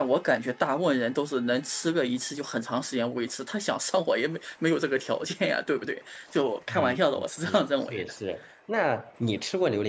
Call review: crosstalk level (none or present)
present